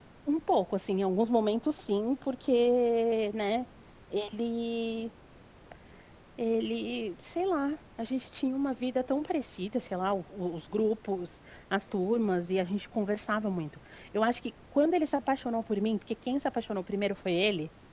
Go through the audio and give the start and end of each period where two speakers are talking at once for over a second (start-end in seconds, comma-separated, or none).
none